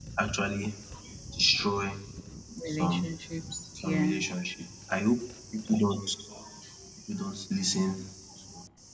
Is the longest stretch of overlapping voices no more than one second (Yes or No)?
Yes